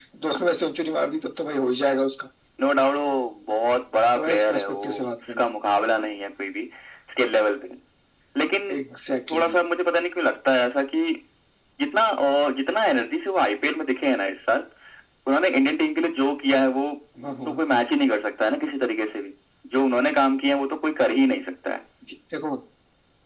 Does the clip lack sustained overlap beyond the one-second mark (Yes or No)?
No